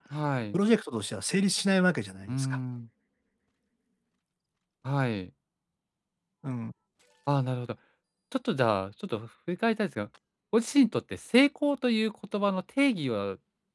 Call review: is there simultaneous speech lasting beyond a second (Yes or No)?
No